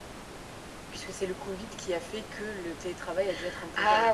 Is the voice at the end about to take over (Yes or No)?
Yes